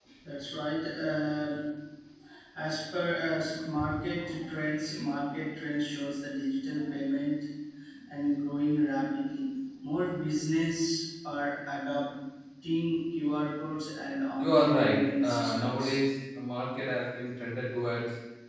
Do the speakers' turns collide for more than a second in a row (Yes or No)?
Yes